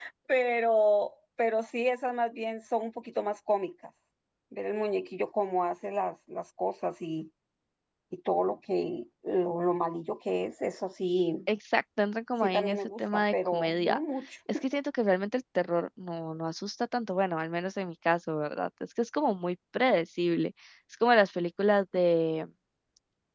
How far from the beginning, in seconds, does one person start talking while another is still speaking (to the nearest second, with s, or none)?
12 s